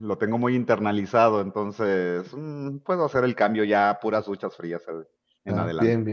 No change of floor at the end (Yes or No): No